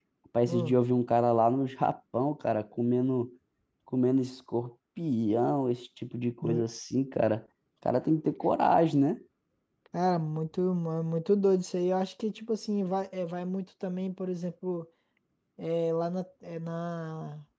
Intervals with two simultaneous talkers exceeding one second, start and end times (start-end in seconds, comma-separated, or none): none